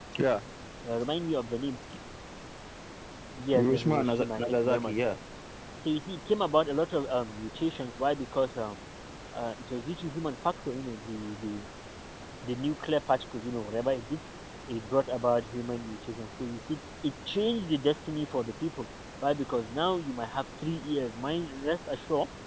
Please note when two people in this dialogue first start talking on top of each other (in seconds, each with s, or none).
3.5 s